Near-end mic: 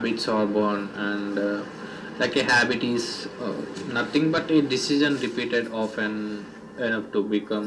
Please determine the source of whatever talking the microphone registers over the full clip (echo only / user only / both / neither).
echo only